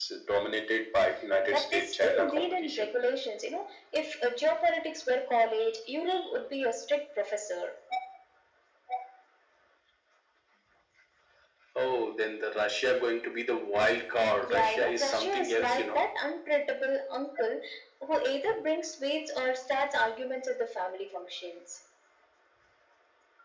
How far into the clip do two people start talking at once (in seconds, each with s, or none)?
1.4 s